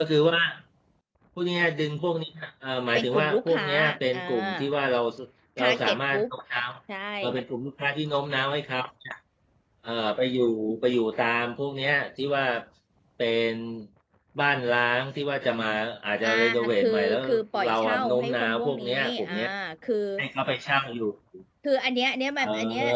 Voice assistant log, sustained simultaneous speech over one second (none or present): present